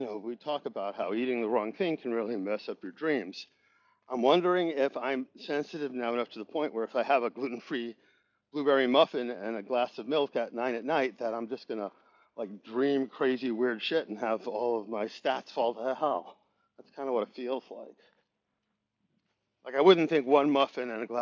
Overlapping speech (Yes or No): No